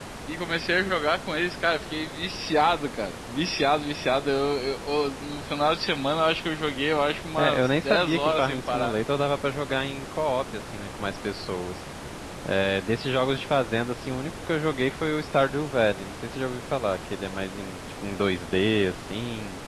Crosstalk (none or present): present